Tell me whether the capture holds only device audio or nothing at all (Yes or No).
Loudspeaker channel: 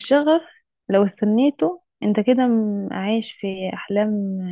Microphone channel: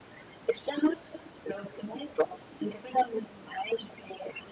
Yes